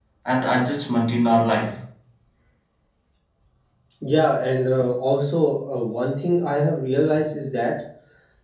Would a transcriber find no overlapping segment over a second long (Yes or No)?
Yes